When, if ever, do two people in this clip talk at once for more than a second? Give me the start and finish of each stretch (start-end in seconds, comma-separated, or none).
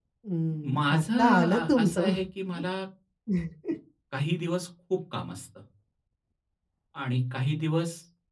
0.6-2.1